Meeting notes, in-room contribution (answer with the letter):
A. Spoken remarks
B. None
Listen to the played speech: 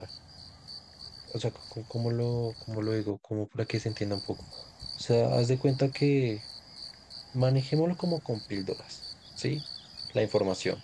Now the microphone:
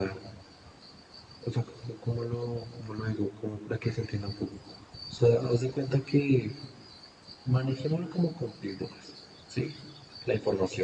B